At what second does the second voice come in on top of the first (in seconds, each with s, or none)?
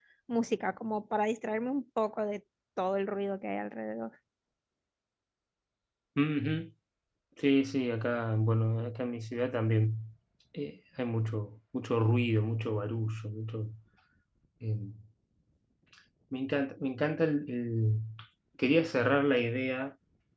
none